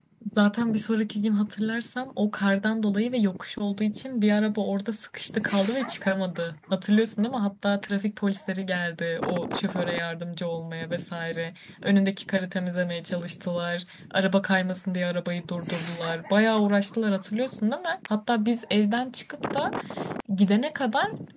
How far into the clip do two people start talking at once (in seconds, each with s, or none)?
none